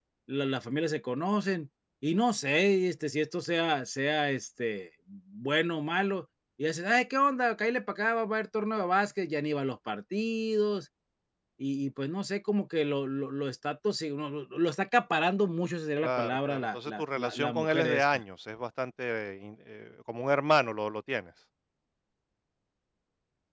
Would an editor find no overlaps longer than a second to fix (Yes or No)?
No